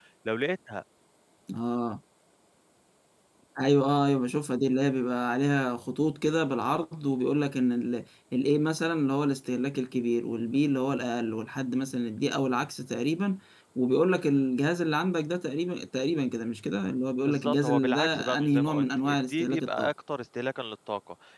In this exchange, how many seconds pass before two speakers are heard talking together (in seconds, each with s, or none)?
17.3 s